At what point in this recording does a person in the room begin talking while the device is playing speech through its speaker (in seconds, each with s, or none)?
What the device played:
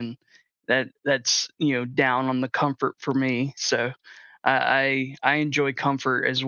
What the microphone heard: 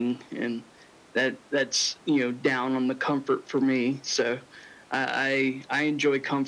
none